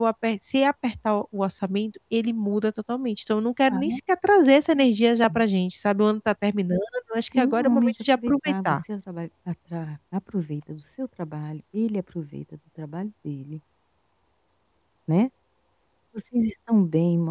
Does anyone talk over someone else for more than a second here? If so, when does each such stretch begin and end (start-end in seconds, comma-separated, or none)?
7.1-8.8